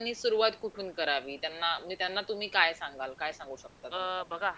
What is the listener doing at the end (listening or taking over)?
taking over